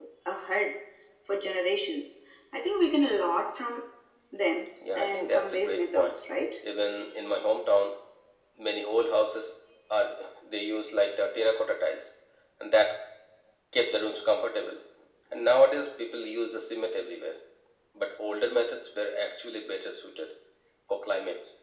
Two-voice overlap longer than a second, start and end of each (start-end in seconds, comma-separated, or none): 5.0-6.2